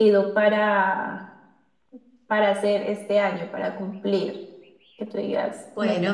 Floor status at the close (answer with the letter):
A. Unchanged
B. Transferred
B